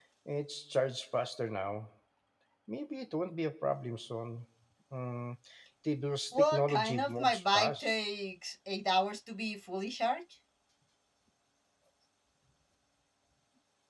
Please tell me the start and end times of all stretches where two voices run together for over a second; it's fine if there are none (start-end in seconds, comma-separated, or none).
6.3-8.0